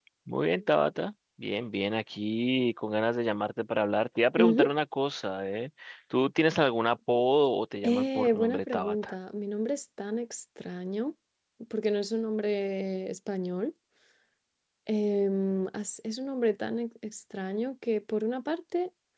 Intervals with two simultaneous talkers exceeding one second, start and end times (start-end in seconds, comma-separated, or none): 7.8-9.1